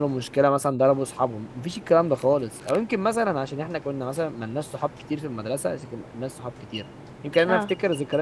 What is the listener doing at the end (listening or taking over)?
listening